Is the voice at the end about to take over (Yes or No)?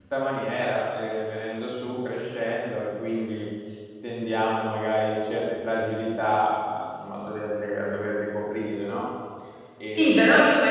Yes